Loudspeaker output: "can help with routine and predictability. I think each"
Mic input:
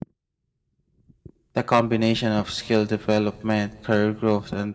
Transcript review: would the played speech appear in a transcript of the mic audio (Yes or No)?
No